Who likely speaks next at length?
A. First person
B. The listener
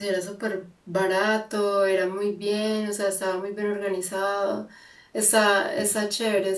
A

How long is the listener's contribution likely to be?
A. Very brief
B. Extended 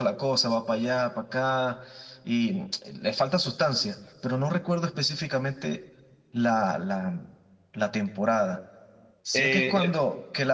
A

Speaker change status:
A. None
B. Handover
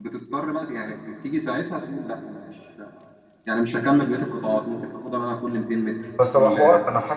B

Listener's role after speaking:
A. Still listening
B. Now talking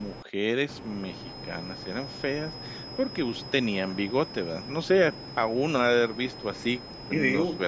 A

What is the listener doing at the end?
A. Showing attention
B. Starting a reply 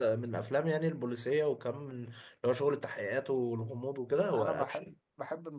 B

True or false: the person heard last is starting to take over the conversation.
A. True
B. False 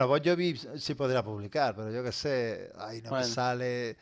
B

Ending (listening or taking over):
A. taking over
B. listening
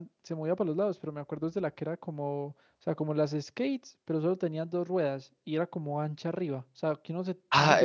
A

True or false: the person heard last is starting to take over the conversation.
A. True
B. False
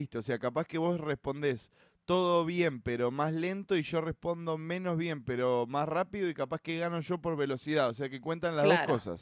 A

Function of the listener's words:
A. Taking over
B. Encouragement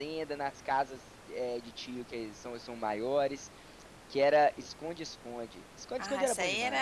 A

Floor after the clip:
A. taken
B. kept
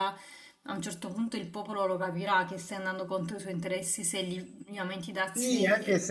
A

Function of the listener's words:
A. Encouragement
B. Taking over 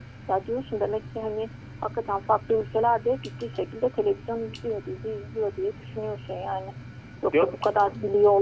A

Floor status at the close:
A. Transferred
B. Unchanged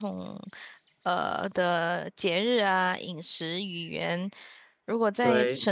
B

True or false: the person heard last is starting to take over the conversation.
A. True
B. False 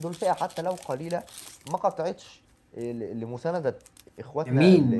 A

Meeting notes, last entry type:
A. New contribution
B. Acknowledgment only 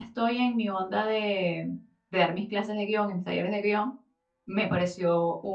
B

